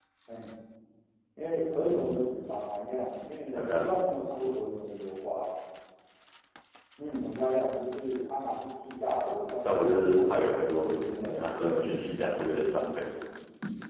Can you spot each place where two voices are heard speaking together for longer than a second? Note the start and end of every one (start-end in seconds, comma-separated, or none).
9.6-11.5